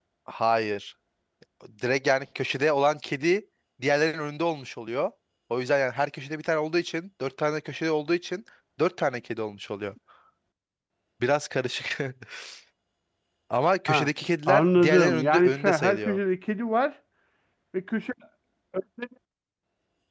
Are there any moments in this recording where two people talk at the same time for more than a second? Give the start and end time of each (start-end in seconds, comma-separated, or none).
14.5-16.2